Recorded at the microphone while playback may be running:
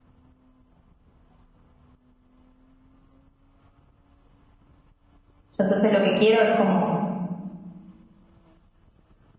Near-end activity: present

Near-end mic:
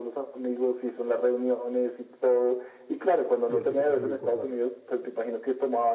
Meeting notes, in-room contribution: present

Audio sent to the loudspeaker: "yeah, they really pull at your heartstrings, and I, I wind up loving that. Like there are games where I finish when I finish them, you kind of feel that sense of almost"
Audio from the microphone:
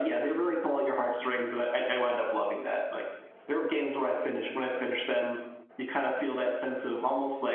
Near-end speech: none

